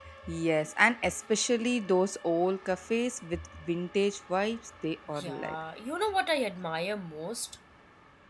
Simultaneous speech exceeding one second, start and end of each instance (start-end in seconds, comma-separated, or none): none